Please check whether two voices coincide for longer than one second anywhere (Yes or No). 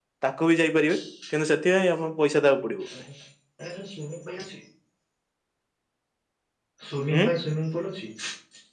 No